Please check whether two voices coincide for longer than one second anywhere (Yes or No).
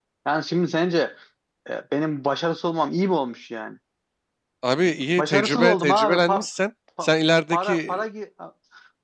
Yes